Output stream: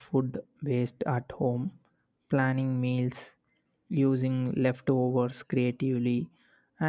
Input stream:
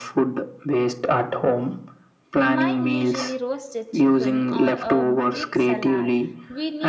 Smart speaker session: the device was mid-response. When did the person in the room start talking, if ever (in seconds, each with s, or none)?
2.4 s